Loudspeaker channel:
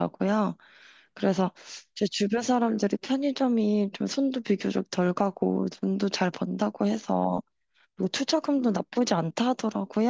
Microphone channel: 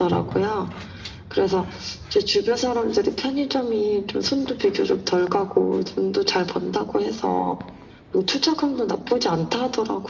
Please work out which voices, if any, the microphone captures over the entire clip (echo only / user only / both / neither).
echo only